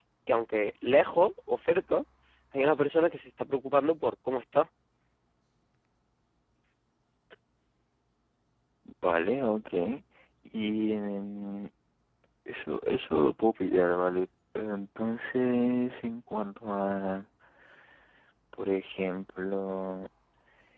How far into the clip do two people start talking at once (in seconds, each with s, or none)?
none